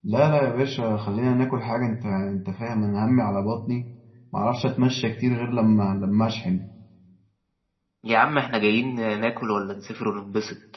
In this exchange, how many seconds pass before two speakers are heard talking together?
none

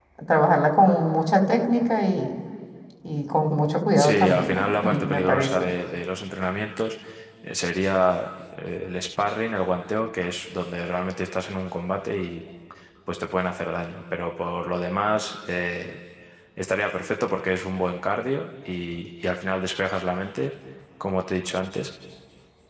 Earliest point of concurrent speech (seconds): 4 s

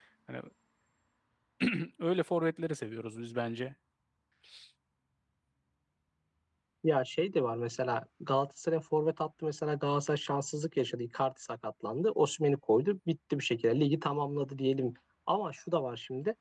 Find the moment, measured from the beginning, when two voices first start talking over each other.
none

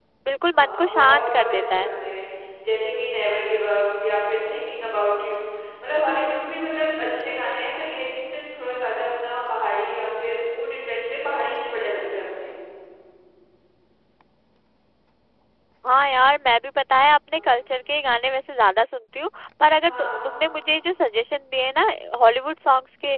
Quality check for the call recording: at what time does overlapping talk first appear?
1 s

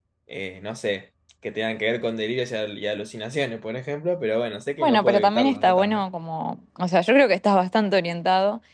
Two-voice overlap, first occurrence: 5 s

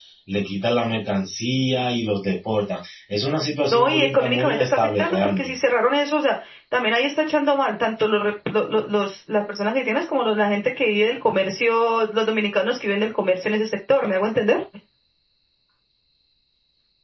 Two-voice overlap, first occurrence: 4 s

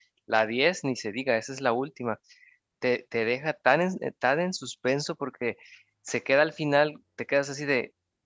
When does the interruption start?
none

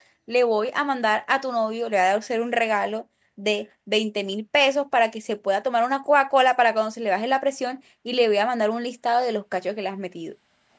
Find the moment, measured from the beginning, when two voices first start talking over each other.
none

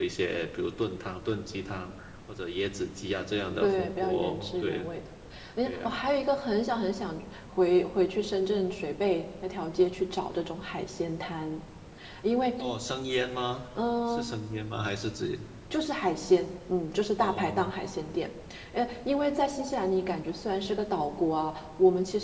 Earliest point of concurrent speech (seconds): 4 s

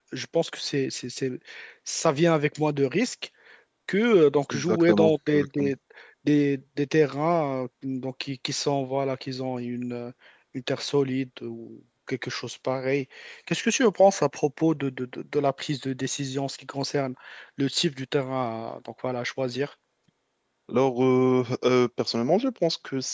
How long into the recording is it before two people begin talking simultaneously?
5 s

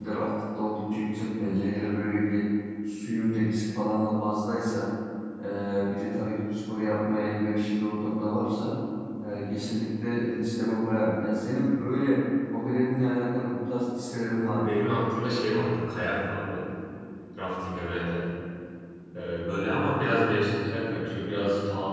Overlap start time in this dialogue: none

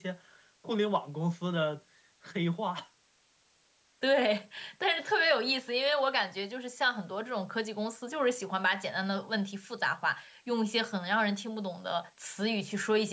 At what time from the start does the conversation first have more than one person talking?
none

